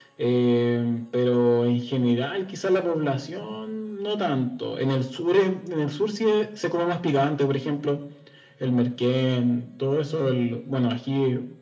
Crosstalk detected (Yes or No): No